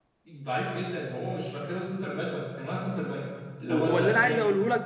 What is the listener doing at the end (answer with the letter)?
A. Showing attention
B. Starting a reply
B